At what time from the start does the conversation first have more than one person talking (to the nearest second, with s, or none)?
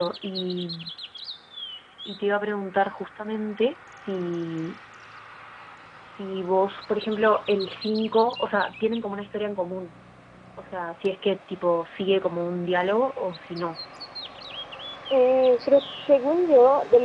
none